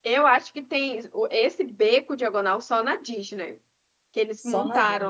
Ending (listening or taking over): taking over